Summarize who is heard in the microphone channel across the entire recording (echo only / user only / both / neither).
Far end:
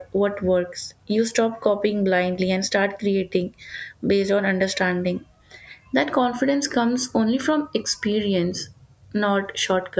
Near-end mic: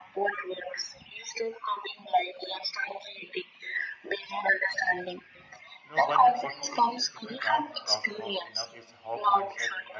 both